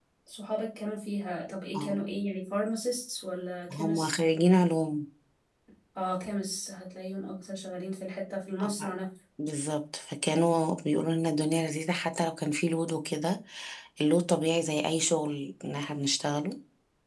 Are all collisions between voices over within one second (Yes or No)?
Yes